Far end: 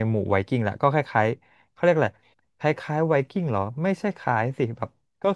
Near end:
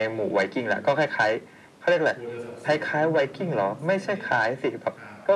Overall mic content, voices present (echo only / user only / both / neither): both